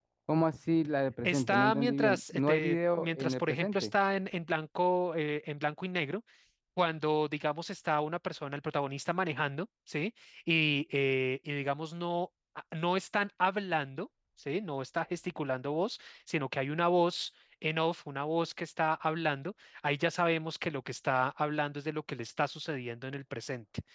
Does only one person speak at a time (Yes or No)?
No